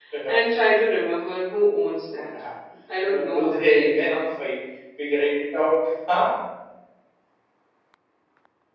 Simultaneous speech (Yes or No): Yes